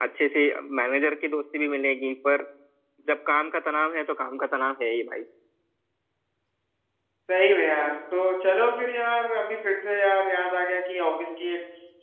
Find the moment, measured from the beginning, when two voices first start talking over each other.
none

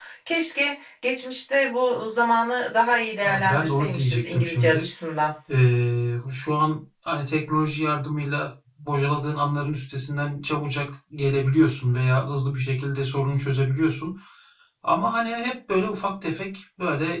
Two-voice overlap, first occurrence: 3.2 s

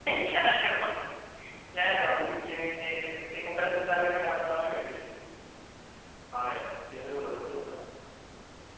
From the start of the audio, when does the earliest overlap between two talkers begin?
2.0 s

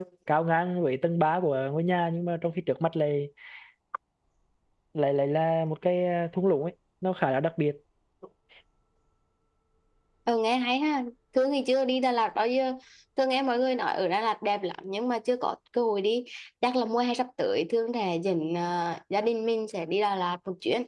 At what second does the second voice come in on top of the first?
none

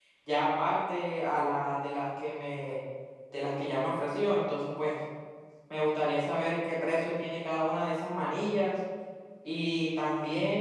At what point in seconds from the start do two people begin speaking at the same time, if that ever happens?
none

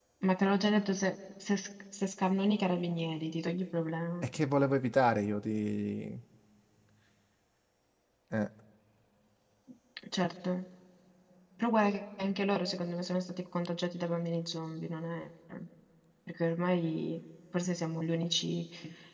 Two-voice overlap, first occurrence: none

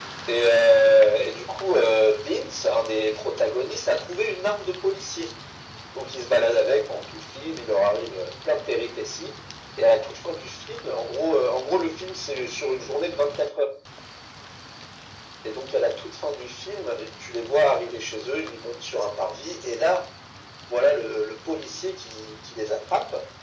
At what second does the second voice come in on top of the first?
none

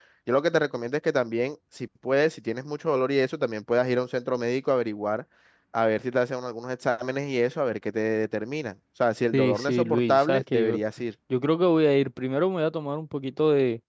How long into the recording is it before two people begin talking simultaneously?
9.3 s

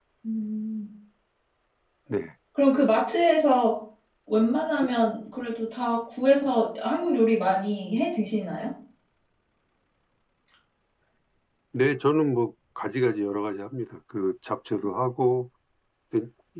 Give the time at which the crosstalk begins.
none

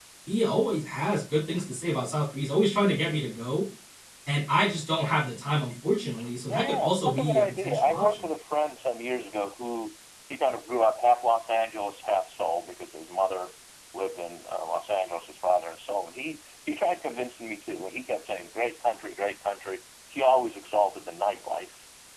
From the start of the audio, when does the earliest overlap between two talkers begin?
6.5 s

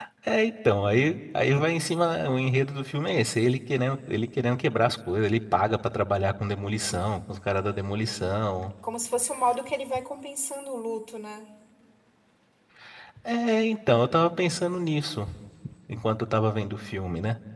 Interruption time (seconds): none

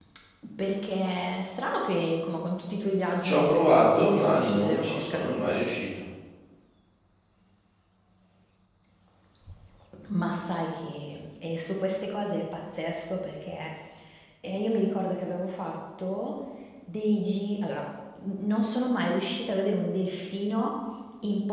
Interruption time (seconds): 3.1 s

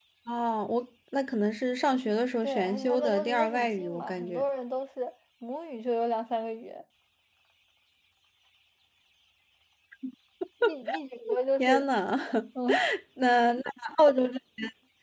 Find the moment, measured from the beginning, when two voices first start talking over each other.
2.4 s

